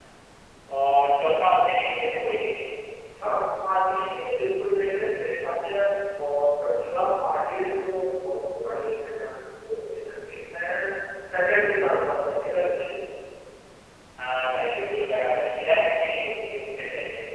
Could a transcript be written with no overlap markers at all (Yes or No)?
Yes